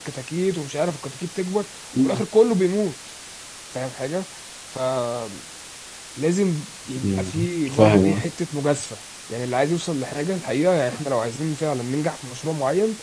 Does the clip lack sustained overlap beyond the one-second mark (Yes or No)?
No